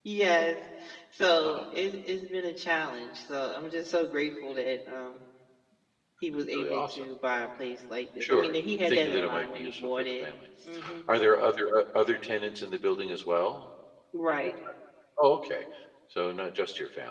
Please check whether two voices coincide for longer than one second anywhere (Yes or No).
Yes